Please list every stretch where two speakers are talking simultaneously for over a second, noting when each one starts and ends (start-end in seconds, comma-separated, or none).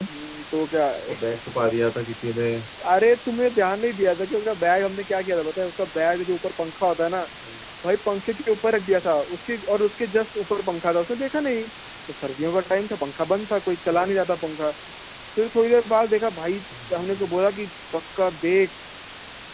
none